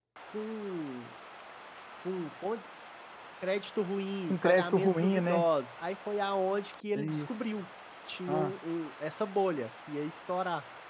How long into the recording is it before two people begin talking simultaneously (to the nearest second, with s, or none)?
4 s